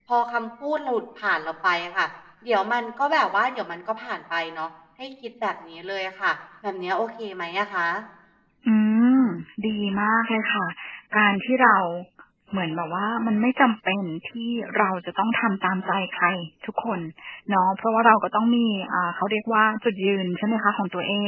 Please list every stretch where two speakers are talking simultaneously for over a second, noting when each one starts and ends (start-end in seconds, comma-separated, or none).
none